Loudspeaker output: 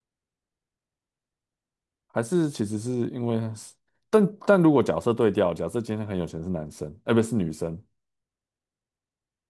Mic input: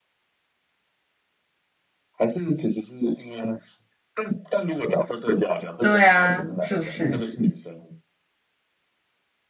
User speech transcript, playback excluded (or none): 对啊，是不是？